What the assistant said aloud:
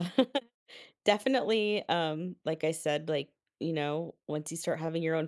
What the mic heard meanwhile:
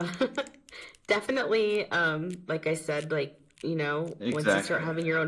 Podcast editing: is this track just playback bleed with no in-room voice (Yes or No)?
No